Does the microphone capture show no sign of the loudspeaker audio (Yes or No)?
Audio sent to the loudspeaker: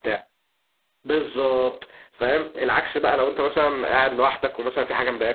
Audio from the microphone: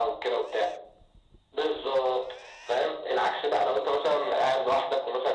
No